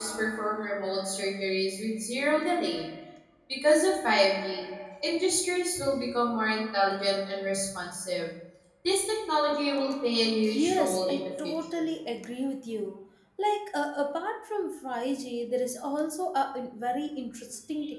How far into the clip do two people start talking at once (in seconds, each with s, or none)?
10.4 s